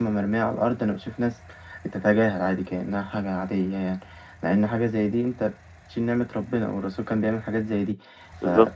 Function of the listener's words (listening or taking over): listening